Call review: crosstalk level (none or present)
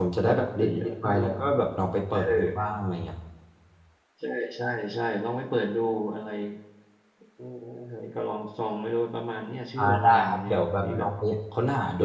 present